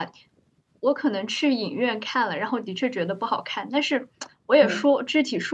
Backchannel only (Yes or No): Yes